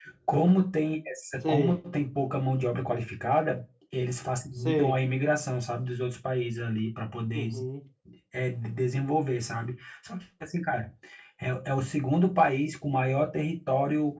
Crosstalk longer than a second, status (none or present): none